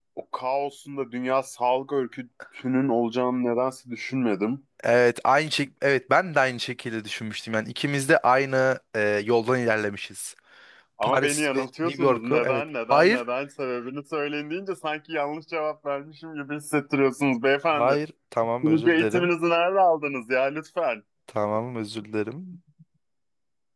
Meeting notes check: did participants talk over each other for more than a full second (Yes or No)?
Yes